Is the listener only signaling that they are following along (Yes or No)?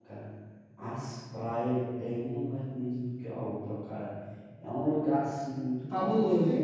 Yes